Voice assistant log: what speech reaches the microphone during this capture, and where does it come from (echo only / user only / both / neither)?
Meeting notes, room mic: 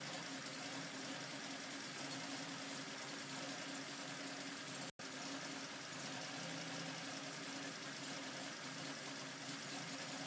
neither